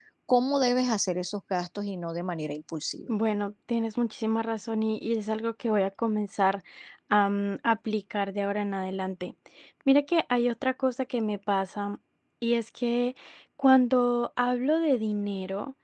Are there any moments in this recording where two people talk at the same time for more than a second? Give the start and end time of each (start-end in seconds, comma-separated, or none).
none